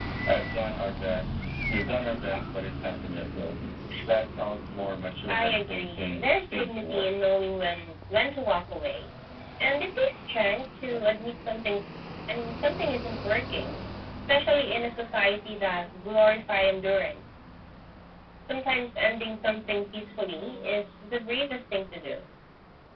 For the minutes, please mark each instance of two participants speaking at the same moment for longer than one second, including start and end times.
5.3-7.1

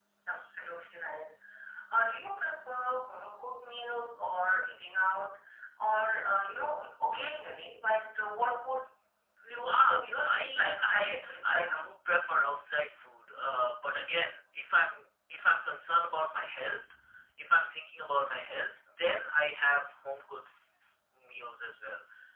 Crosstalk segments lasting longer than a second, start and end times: 9.7-11.8

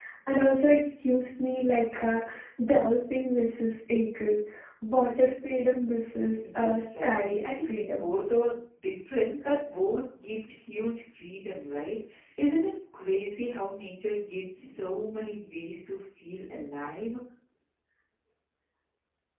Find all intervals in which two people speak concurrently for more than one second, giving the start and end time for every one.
6.5-8.1

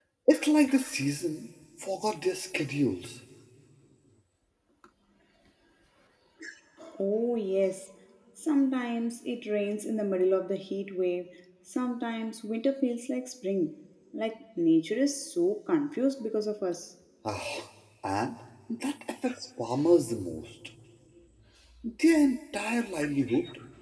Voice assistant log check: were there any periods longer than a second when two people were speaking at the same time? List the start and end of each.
none

